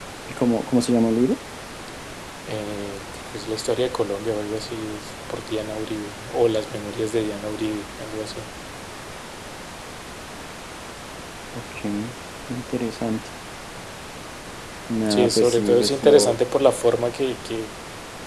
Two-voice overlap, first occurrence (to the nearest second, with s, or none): 15 s